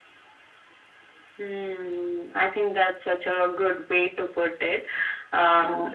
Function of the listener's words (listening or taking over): listening